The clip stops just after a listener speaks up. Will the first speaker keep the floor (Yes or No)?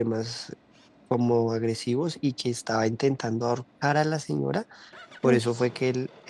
Yes